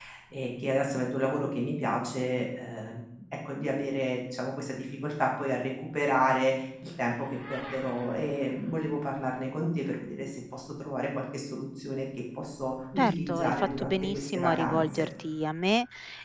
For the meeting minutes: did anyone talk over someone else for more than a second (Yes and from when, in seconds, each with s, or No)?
Yes, from 13.0 s